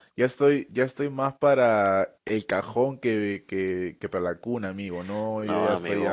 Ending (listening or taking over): taking over